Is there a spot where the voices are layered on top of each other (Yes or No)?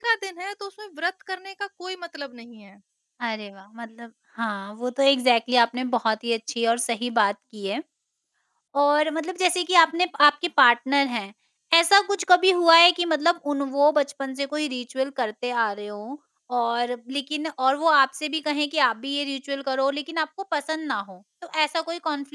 No